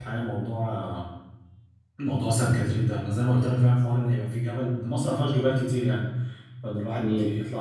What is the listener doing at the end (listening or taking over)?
listening